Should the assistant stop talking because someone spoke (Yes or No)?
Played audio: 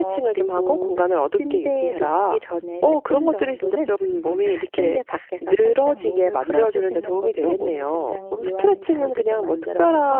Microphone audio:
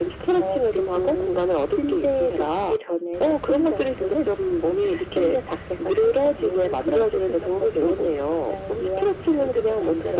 No